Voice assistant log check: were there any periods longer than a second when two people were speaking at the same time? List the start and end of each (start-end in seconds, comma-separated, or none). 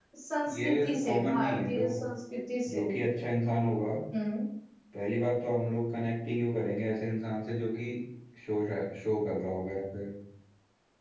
0.6-1.9